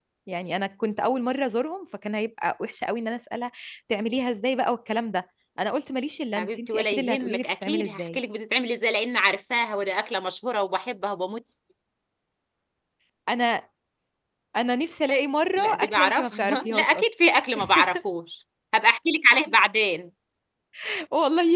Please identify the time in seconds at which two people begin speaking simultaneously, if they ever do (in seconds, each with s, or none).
6.4 s